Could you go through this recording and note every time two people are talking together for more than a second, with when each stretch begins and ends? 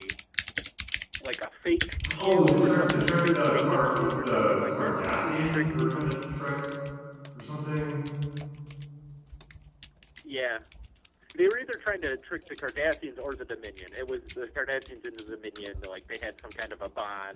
2.2-6.1

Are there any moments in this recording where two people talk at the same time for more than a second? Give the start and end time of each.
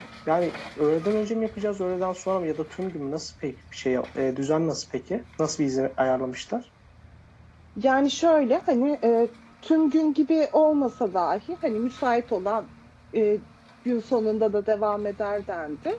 none

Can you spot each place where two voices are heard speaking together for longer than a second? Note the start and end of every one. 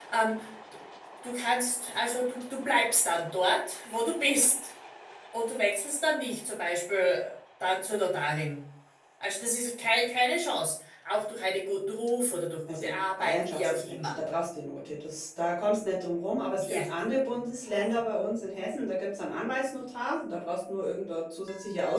12.7-13.9

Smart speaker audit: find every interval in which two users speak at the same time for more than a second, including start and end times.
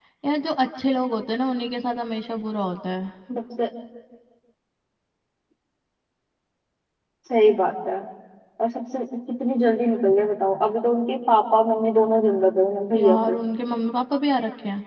none

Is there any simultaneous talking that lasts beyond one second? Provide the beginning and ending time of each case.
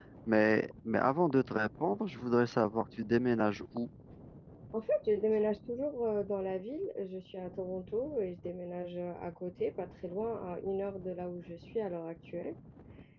none

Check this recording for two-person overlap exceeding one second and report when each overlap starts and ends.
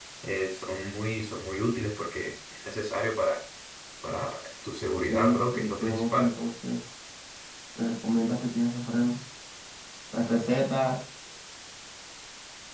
5.1-6.3

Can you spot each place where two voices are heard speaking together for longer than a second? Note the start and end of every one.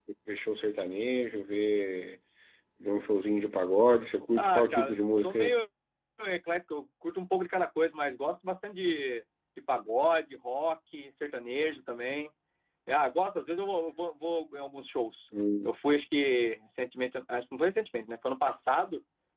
4.4-5.6

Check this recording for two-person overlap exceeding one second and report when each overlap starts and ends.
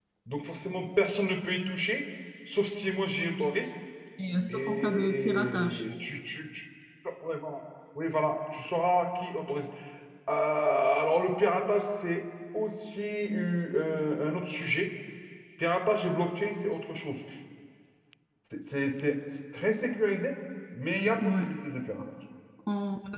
4.5-5.8

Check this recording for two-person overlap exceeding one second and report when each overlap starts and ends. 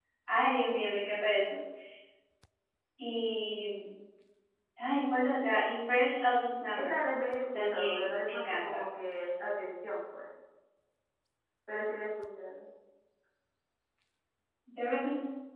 7.5-8.8

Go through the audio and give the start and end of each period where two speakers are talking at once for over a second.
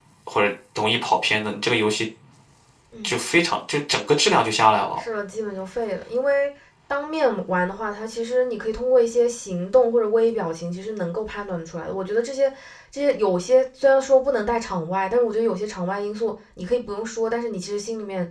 none

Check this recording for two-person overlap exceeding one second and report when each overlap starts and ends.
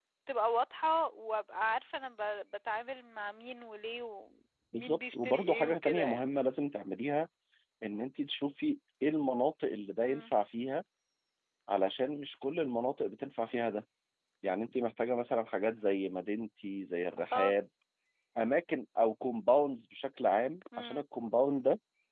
4.7-6.3

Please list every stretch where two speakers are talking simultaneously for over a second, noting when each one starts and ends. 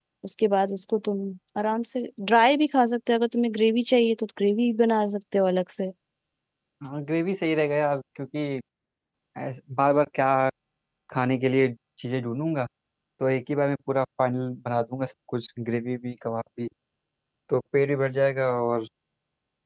none

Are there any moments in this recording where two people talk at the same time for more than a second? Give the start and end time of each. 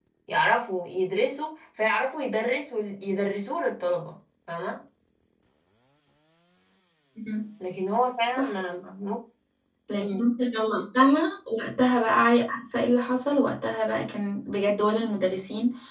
none

